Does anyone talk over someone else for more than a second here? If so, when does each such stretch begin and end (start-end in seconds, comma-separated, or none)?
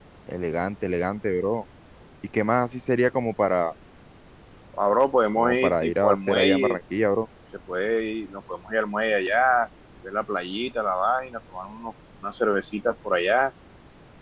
5.4-6.8